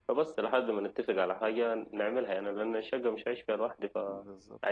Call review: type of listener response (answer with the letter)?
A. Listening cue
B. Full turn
B